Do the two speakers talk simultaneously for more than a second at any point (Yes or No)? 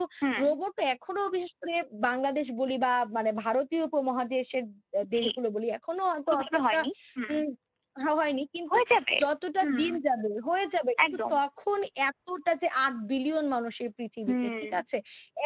No